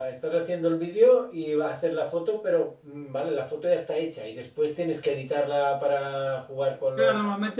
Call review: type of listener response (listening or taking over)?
taking over